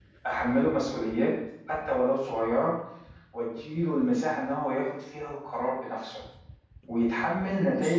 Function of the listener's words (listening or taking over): listening